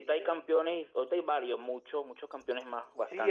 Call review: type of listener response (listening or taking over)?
taking over